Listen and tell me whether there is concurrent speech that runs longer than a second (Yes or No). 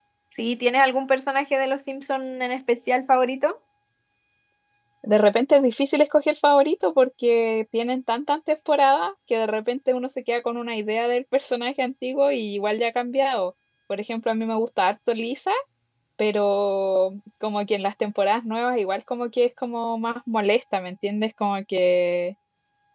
No